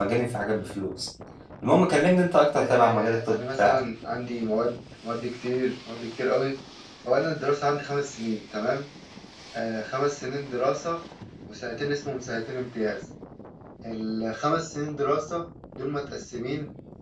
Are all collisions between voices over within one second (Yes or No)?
No